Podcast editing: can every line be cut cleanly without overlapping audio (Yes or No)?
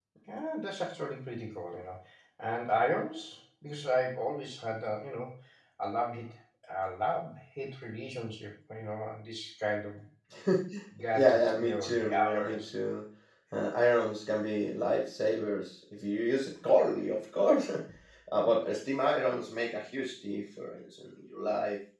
No